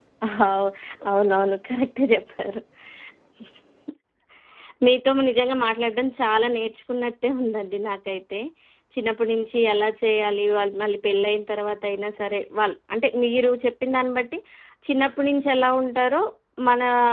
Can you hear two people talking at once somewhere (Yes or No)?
No